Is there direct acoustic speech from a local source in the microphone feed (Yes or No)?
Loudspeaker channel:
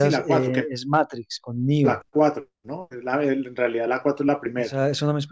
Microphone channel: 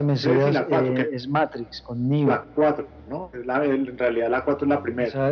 No